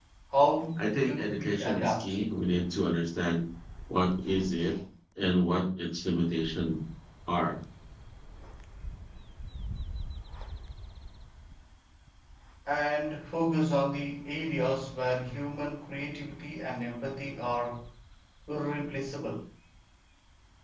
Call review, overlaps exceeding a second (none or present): present